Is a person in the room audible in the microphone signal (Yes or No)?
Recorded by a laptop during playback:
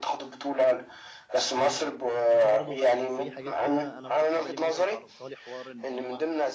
Yes